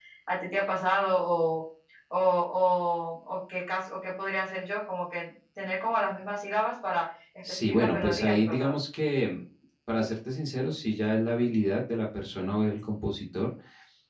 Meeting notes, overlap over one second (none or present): present